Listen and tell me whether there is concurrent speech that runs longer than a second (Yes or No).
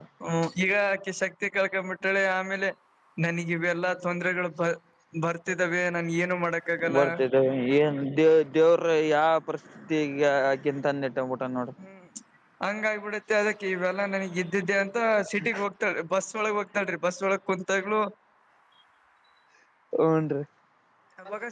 No